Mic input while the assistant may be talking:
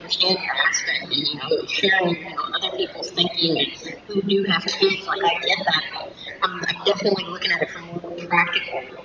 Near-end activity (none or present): none